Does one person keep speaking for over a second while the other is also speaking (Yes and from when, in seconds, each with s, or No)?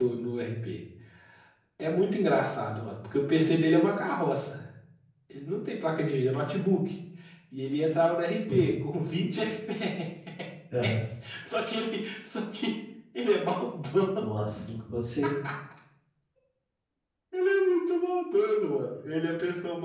No